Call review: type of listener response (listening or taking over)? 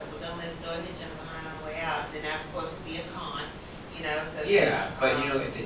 taking over